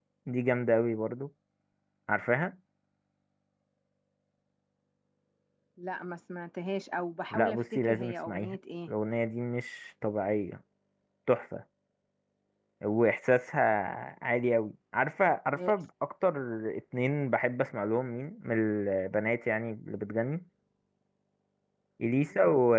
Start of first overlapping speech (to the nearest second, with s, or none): 7 s